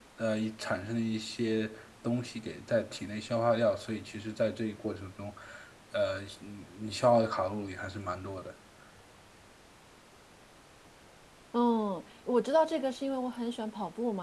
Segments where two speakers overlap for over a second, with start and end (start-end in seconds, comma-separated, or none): none